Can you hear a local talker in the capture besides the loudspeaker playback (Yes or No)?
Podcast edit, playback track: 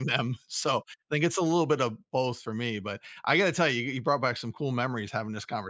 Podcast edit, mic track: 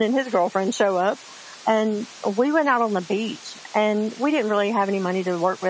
Yes